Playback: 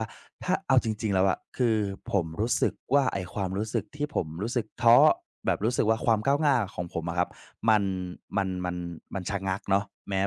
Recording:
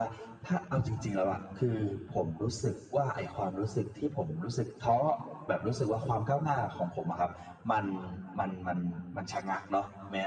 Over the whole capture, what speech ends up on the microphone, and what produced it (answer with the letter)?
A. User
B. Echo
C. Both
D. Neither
B